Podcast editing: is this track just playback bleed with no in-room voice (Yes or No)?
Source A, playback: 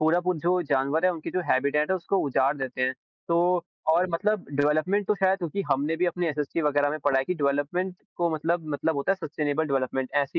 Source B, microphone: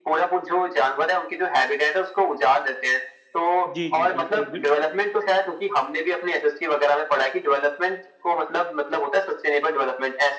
No